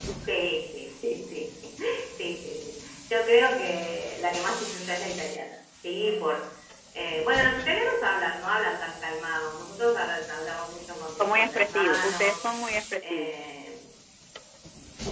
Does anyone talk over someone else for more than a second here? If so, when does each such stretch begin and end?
11.2-12.4

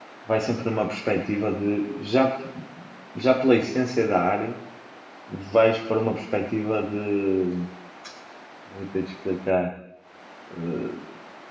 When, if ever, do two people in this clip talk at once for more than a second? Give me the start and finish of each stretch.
none

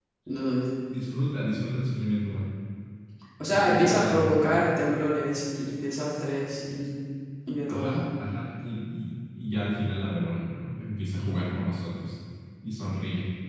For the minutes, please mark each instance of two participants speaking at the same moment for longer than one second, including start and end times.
3.5-4.8

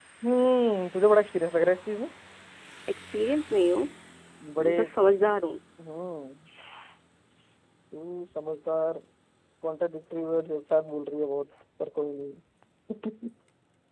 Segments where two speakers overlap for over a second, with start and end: none

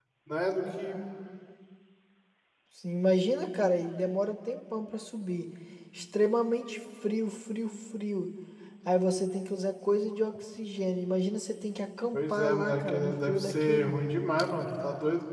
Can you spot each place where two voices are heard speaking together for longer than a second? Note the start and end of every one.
12.1-13.9

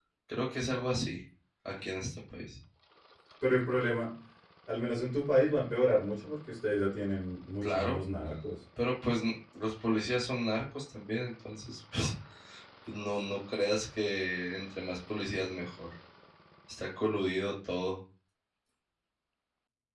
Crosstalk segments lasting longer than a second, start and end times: none

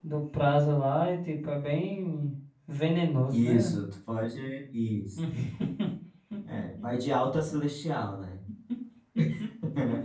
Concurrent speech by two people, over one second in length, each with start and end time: none

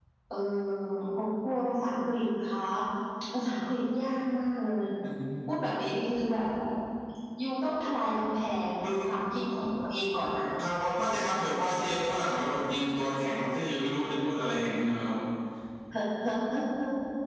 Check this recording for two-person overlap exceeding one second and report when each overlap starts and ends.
none

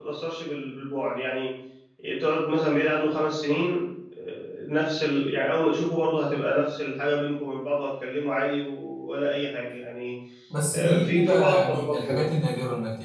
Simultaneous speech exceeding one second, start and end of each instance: 10.7-12.2

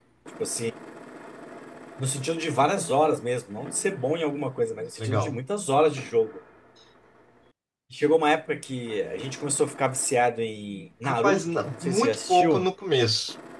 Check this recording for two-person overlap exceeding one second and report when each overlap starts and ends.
11.0-12.7

